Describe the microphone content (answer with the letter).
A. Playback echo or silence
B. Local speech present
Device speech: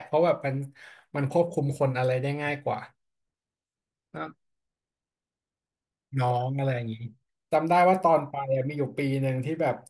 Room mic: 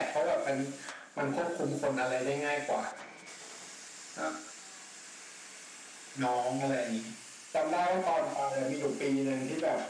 A